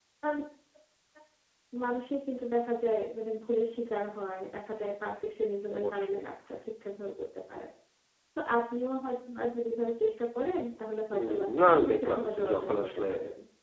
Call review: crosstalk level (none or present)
present